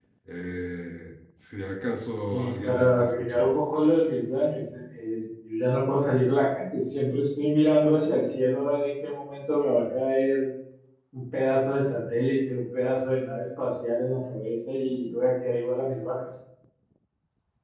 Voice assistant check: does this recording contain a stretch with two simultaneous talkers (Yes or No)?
Yes